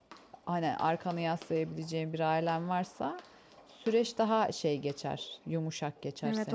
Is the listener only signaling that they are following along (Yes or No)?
No